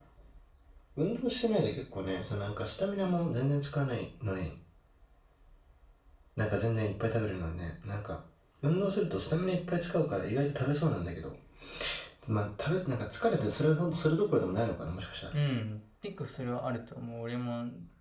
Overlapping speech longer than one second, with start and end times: none

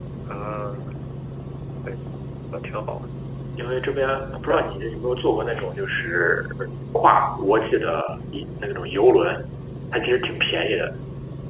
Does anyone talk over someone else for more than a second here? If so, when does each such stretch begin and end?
none

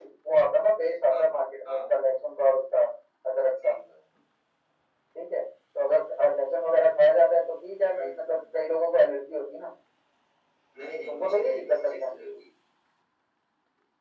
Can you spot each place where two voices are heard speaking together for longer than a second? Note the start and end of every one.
11.1-12.4

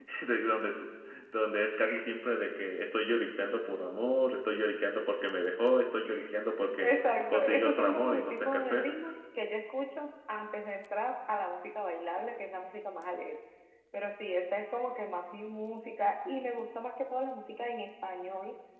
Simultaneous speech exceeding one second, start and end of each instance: 6.8-8.9

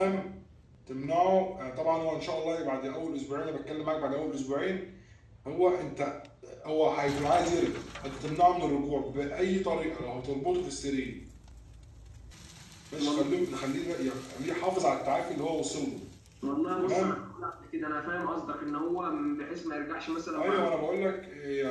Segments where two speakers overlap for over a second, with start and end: none

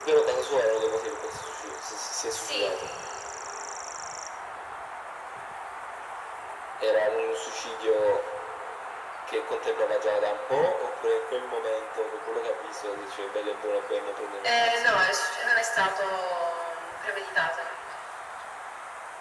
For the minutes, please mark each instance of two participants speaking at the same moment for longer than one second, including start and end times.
none

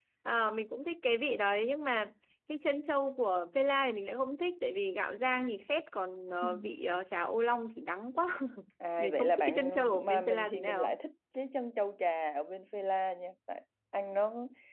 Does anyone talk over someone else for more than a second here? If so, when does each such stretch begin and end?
9.0-10.9

